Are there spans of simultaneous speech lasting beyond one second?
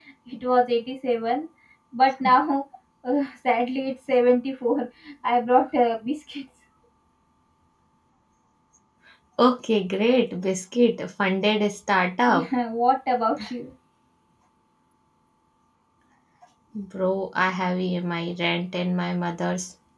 No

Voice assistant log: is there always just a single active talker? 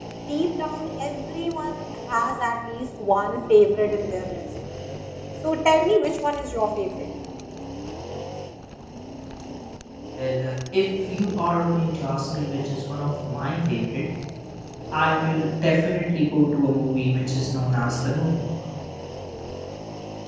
Yes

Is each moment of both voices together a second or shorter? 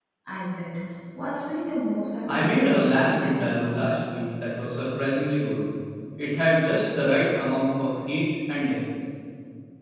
No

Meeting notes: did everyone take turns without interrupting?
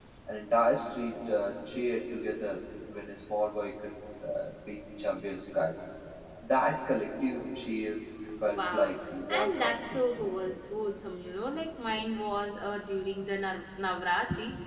No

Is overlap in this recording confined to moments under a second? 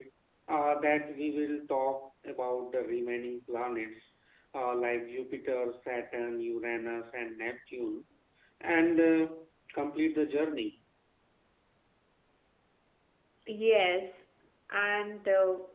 Yes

